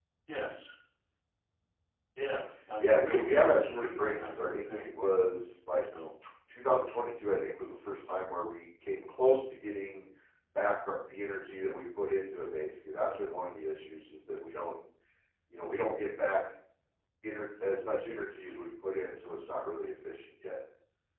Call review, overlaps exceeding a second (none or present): present